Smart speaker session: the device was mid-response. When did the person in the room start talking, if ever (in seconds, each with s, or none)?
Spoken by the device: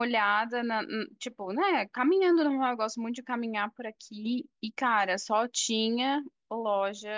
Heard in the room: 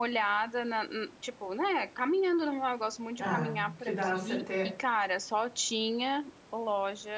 3.2 s